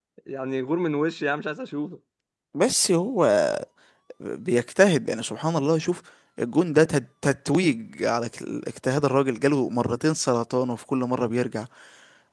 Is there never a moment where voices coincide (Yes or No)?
Yes